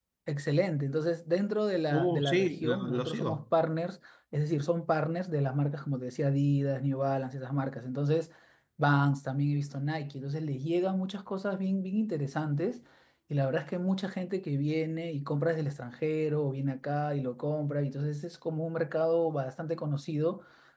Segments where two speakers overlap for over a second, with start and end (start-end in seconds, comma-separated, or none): 1.9-3.4